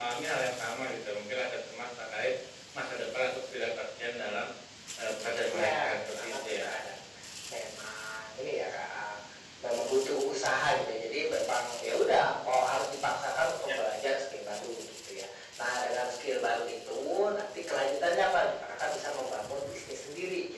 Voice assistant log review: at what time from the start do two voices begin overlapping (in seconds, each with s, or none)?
5.5 s